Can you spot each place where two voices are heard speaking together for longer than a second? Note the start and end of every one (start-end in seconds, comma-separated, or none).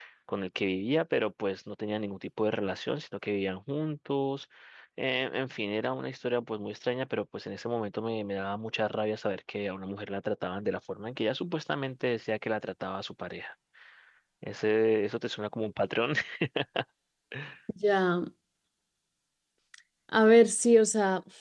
none